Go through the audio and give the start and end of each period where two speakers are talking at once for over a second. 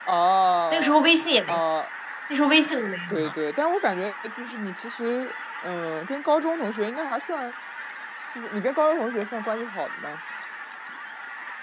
none

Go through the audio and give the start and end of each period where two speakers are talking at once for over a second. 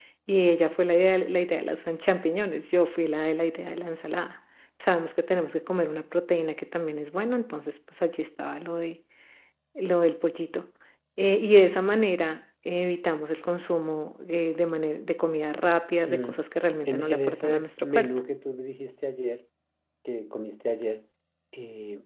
16.9-18.2

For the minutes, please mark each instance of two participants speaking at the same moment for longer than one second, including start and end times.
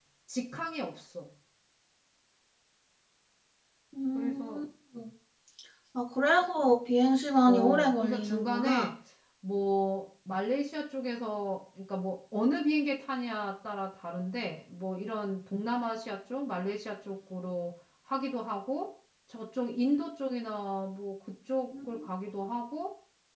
7.5-8.9

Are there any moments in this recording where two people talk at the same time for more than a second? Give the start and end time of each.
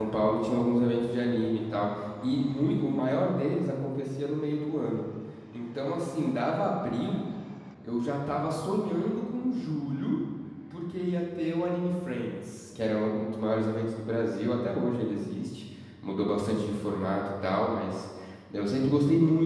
none

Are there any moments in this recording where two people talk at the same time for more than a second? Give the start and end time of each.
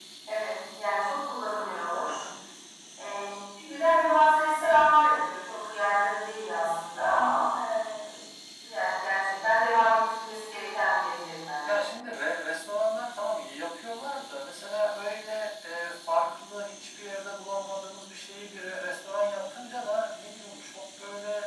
none

